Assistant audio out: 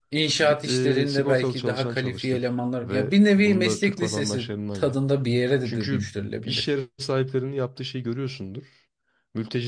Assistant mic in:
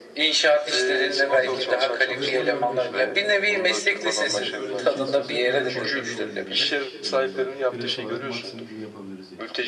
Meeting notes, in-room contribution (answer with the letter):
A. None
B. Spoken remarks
B